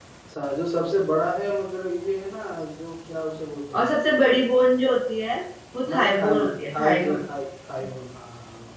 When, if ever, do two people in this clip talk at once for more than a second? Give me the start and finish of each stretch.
5.8-7.2

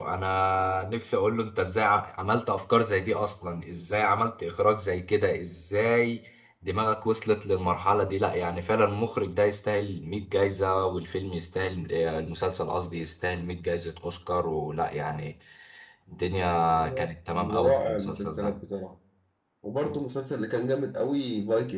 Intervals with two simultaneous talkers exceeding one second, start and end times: 17.3-18.6

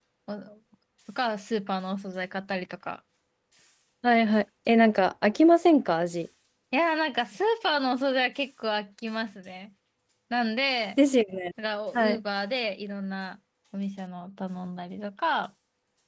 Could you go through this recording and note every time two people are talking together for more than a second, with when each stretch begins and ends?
none

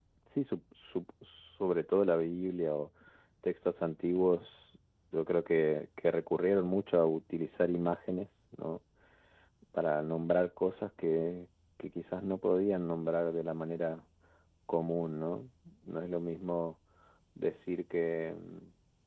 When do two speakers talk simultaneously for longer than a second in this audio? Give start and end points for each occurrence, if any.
none

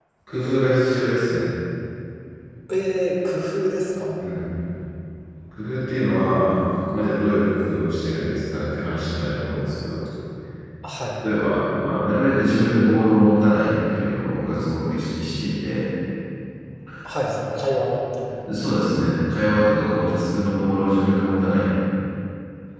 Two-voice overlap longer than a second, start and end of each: none

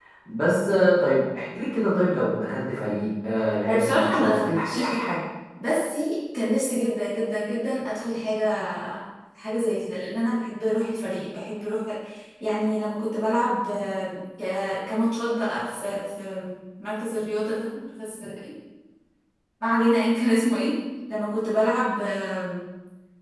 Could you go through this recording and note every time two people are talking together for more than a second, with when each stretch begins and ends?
3.7-4.9

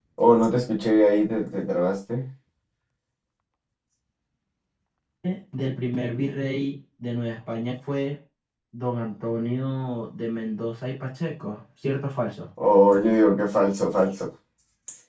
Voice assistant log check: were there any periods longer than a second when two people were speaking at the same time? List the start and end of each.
none

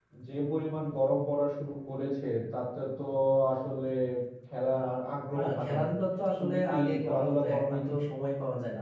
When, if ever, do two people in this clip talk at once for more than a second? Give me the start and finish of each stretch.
6.4-7.8

